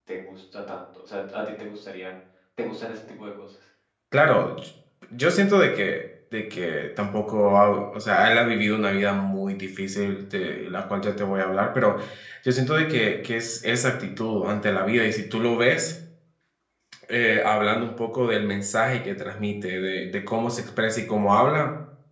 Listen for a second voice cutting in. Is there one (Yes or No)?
No